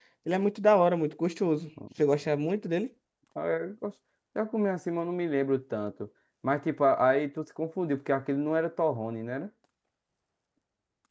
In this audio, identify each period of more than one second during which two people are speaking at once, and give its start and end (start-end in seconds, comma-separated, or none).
none